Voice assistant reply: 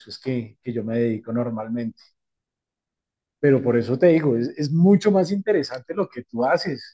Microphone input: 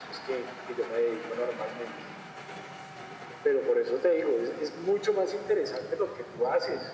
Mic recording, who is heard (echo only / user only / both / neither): echo only